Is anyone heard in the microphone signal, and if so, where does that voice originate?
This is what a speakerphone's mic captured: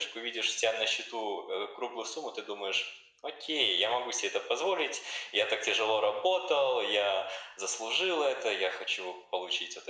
echo only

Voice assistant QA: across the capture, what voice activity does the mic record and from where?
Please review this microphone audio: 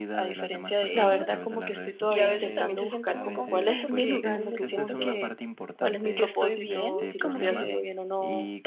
both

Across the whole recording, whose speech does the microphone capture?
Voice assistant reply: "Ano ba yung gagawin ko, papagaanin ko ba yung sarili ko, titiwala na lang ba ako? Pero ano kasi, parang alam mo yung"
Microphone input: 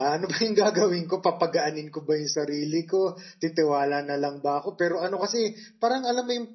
echo only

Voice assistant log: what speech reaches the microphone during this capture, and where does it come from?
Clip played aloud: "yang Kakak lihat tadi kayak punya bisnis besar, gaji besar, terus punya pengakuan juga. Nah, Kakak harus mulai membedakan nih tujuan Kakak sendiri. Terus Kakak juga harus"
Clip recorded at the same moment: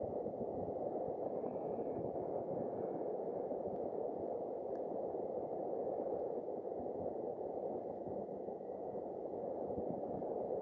neither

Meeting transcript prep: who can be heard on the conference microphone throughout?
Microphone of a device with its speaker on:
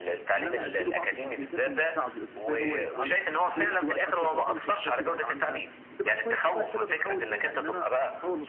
both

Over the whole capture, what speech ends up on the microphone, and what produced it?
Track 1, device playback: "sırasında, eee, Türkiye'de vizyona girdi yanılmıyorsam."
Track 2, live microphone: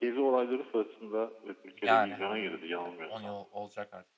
both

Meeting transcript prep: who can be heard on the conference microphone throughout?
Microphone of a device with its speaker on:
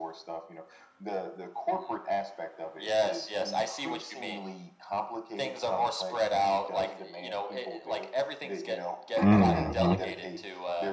both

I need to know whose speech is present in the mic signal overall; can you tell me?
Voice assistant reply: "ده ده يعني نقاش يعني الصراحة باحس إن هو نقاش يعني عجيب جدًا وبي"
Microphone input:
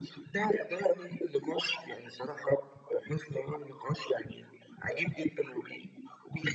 echo only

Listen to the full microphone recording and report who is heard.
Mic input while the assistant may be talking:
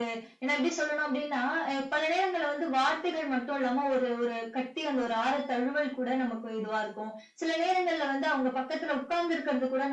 echo only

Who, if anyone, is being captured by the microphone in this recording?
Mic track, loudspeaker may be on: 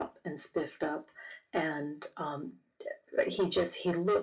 echo only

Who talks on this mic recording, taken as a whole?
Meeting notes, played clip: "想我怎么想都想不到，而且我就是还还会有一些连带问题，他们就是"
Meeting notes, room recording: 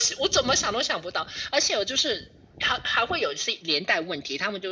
echo only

